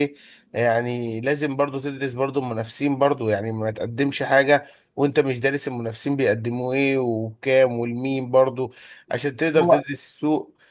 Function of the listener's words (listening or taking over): listening